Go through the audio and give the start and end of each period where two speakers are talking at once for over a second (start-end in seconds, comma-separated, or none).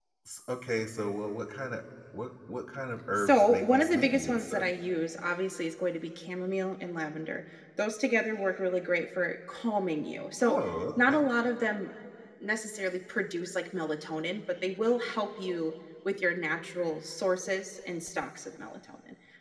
3.2-4.6